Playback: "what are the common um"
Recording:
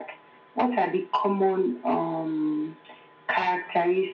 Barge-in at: none

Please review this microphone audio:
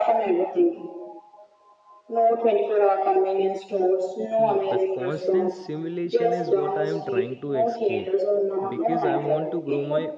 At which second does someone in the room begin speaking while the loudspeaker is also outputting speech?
4.3 s

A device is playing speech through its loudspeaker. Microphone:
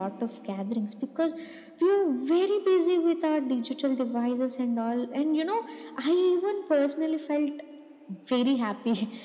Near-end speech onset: none

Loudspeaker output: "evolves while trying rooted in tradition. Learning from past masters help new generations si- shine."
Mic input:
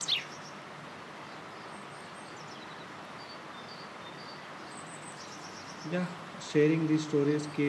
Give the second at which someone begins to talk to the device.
5.8 s

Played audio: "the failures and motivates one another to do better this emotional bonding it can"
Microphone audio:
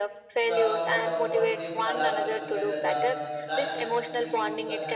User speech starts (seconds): 0.5 s

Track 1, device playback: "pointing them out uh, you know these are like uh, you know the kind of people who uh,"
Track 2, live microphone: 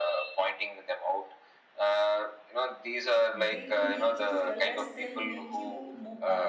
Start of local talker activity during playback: 3.3 s

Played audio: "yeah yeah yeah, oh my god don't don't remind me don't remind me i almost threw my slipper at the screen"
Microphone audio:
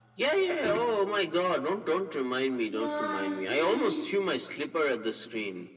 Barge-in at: 2.6 s

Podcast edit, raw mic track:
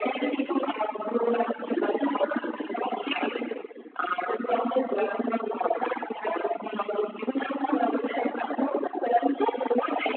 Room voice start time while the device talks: none

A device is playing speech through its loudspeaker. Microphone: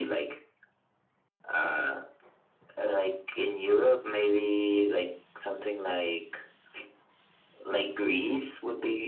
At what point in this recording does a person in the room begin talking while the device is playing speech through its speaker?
none

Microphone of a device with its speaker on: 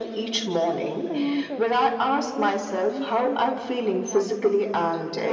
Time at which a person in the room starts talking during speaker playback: 0.7 s

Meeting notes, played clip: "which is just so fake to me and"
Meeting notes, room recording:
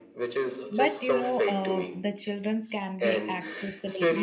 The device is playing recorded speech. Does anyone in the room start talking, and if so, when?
0.8 s

